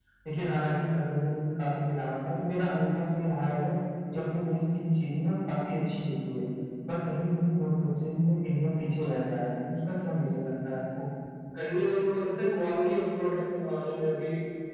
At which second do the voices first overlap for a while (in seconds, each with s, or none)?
none